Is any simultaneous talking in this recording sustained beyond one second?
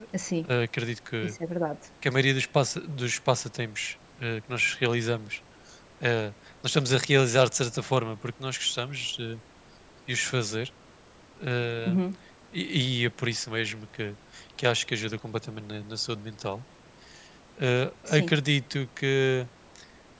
No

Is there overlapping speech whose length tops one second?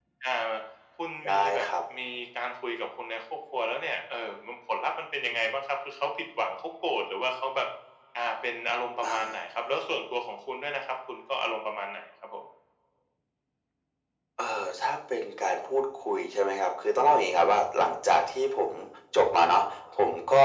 No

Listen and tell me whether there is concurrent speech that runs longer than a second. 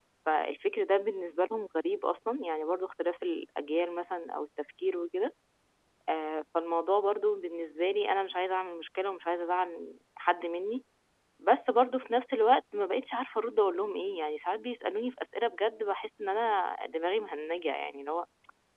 No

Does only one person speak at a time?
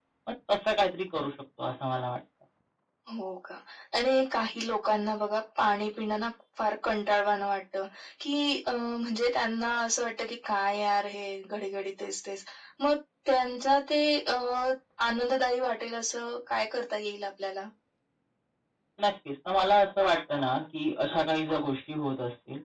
Yes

